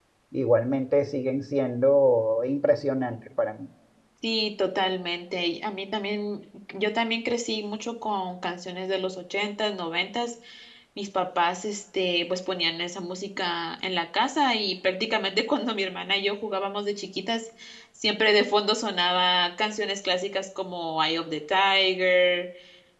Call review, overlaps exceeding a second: none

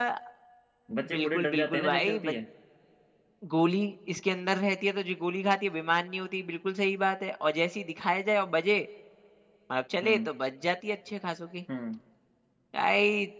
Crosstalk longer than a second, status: present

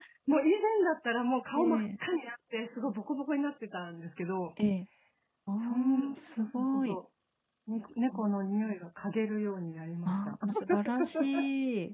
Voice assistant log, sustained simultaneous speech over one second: present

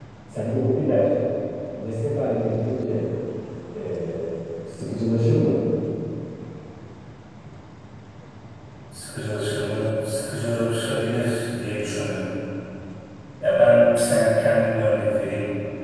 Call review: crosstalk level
none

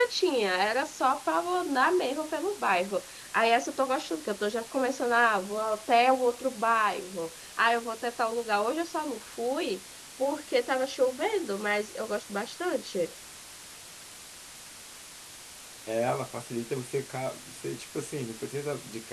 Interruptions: none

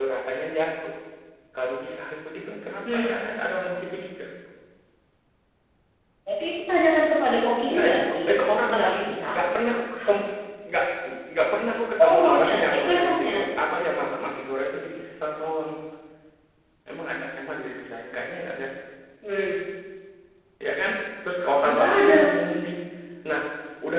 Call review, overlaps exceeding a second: present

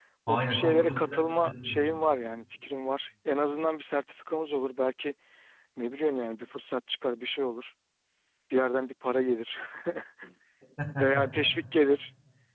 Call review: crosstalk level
present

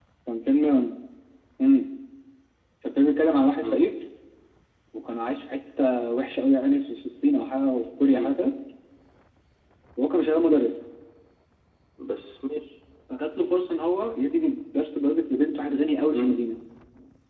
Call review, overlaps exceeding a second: none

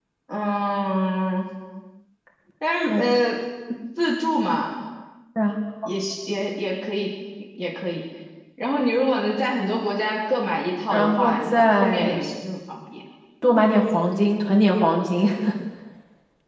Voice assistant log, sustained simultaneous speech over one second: present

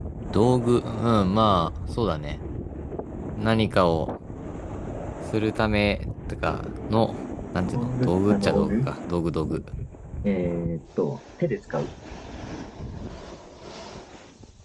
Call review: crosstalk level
present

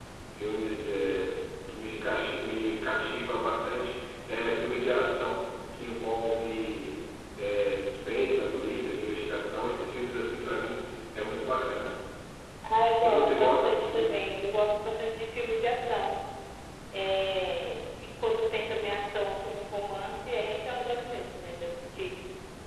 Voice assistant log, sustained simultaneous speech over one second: present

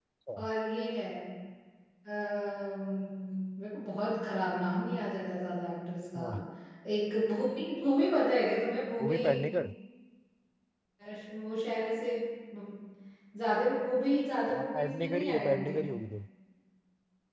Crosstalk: present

